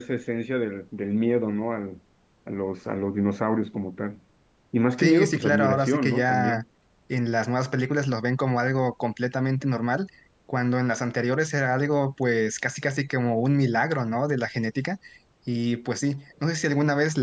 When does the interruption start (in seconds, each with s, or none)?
5.0 s